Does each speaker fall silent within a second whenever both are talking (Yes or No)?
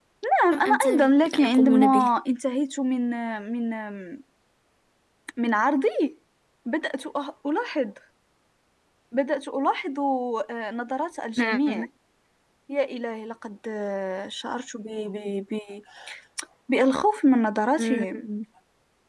No